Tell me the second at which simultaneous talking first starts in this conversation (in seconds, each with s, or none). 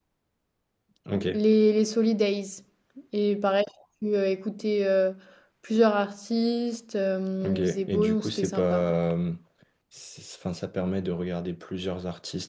7.4 s